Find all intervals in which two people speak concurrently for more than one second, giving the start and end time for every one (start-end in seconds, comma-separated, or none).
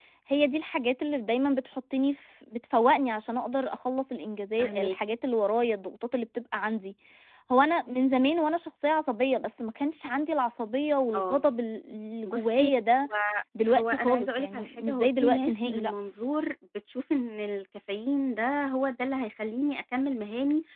13.7-15.9